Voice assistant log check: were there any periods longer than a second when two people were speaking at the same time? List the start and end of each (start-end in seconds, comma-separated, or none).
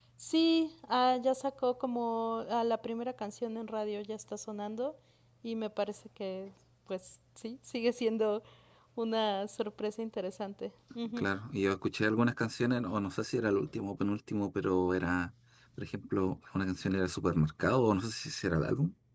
none